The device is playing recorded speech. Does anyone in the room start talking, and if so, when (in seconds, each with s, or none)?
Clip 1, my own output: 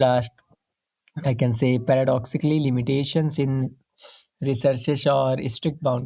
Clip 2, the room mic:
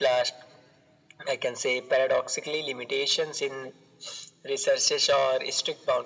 none